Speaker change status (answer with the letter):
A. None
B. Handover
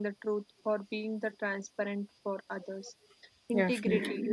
A